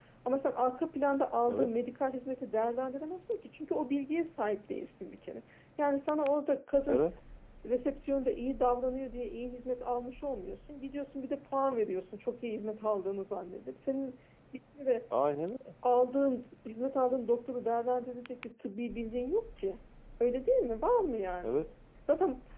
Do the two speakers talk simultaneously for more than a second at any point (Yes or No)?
No